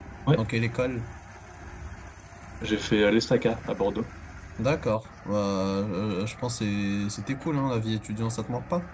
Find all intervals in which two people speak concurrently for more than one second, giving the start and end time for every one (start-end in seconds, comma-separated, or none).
none